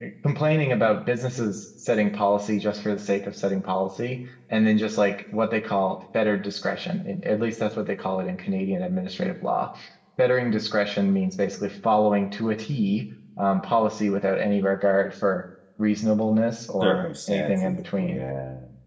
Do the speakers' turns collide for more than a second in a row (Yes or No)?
Yes